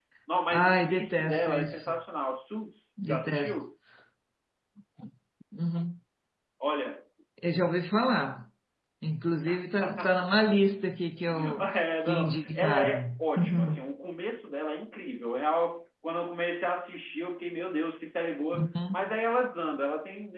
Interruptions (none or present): present